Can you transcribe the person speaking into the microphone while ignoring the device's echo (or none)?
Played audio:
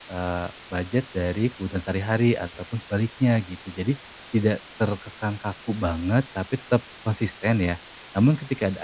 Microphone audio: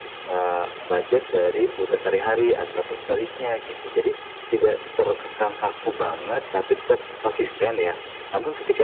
none